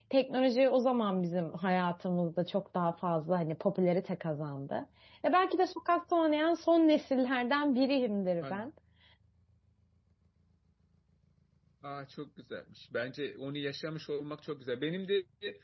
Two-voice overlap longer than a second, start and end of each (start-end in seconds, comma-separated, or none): none